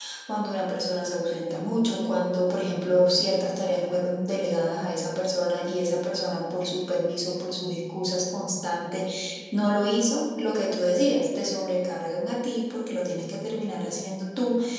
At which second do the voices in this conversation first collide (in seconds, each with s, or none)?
none